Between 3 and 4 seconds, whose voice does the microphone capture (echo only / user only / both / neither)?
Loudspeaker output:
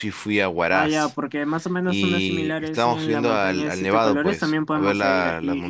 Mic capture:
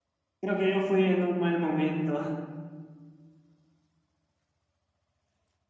neither